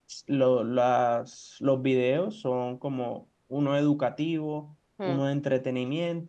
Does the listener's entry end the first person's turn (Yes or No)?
No